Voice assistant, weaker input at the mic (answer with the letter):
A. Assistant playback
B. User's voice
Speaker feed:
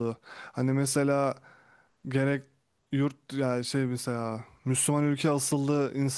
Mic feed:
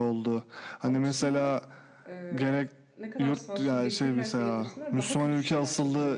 B